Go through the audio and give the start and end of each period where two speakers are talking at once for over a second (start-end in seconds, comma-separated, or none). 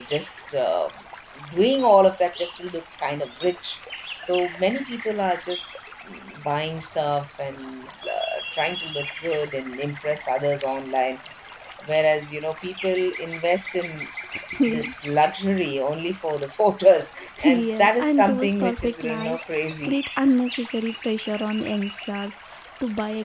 17.4-20.0